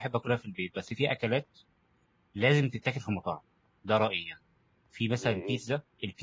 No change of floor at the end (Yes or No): Yes